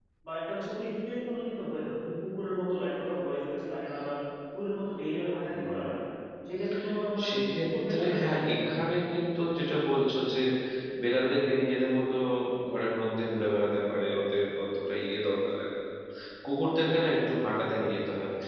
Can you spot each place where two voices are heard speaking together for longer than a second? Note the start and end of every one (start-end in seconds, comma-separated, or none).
7.3-8.6